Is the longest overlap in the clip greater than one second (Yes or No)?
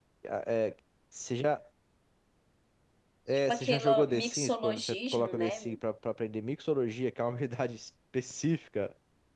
Yes